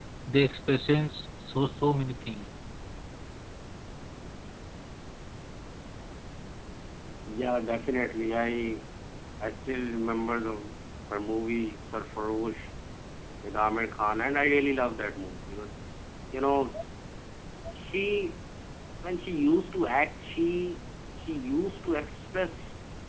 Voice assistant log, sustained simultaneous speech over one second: none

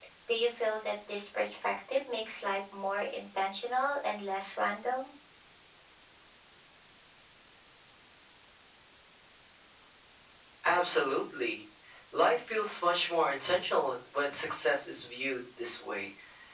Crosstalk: none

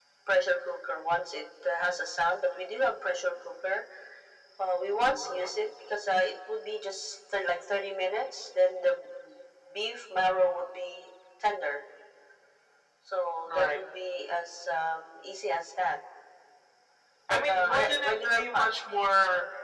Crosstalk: present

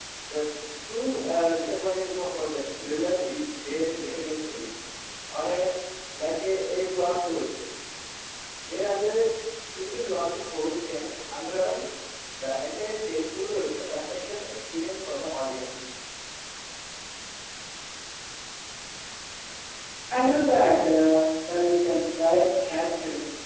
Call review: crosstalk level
none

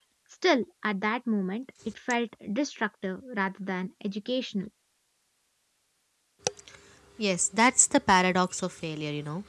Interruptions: none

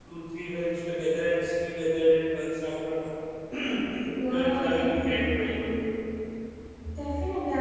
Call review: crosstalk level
present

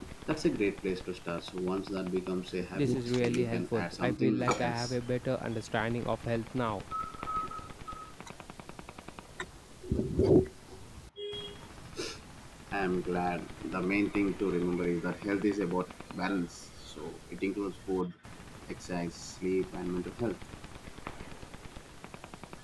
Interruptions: present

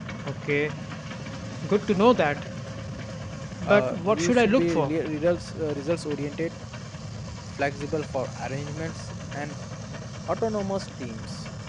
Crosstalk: present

